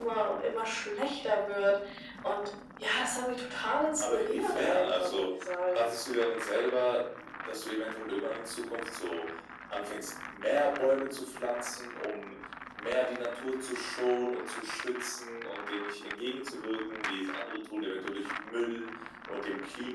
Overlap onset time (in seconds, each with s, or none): 4.0 s